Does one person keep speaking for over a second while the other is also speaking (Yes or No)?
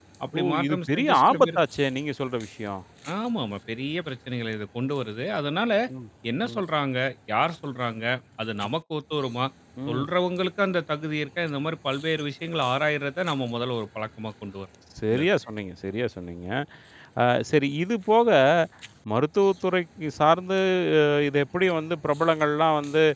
Yes